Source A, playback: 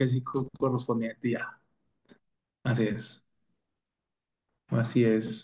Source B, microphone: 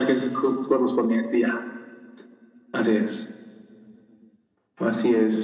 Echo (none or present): present